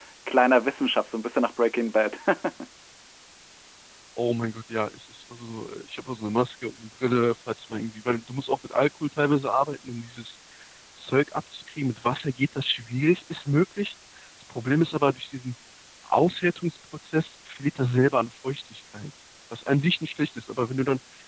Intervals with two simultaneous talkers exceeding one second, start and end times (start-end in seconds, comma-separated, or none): none